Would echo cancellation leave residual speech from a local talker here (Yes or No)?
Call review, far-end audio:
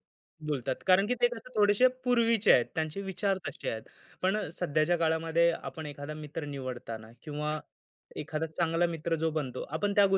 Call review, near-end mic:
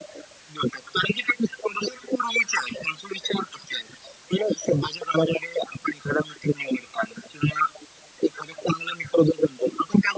No